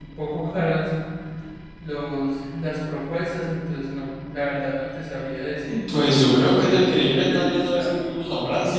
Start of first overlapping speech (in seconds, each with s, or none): 5.9 s